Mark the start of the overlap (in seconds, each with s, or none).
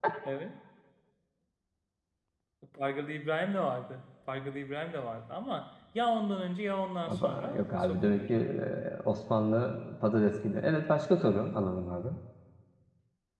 7.1 s